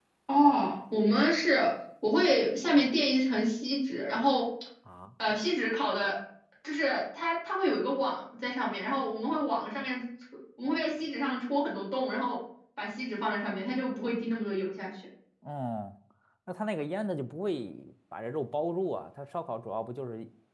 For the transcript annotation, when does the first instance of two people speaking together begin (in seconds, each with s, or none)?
none